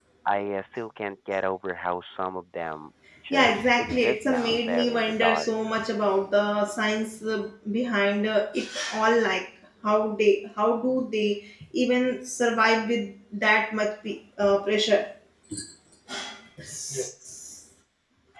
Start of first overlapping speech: 3.3 s

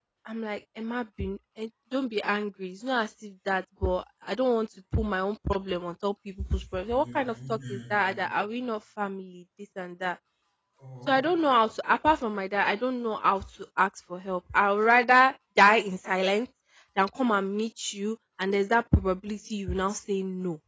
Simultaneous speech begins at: 6.9 s

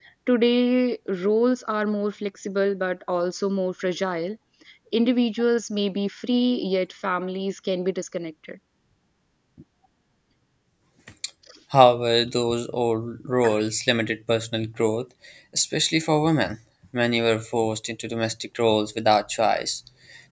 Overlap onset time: none

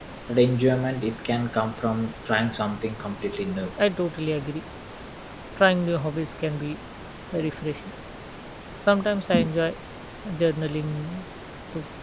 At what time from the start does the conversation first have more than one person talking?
none

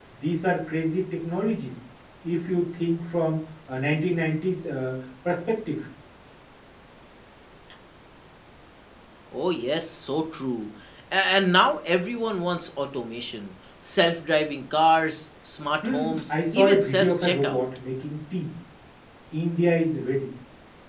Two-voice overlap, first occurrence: 15.8 s

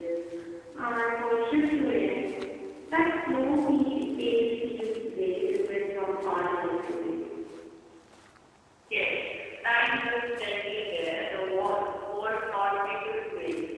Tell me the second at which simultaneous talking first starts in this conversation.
none

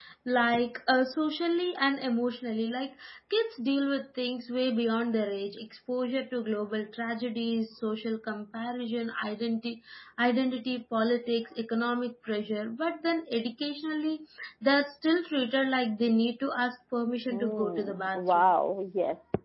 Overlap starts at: 17.3 s

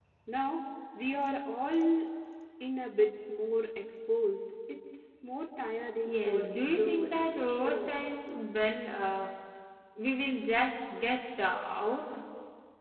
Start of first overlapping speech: 6.0 s

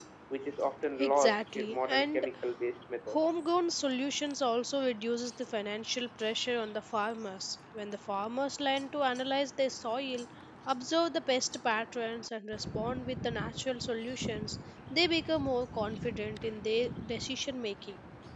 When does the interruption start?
1.0 s

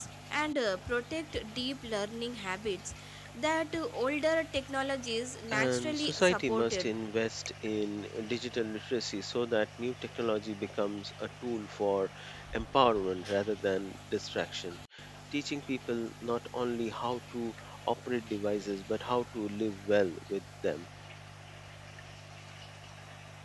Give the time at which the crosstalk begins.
5.5 s

